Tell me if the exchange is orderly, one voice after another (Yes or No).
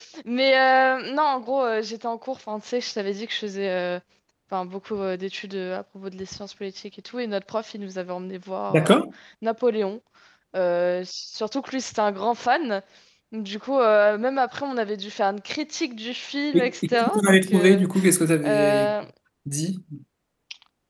No